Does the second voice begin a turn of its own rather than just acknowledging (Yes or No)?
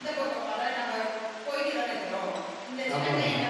No